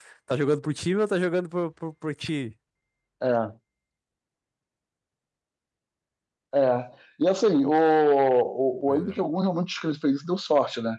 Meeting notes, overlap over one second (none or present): none